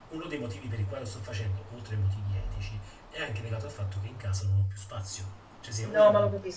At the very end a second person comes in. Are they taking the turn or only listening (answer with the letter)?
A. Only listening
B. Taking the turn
B